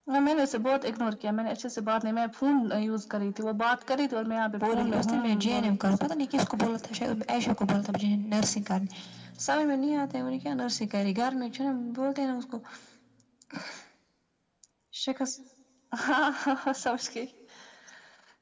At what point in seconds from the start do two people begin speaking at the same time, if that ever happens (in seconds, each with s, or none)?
4.6 s